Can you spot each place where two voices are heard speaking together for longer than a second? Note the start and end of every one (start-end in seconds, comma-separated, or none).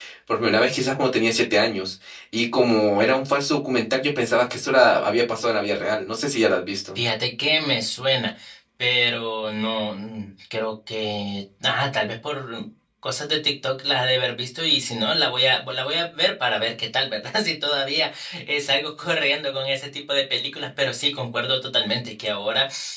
none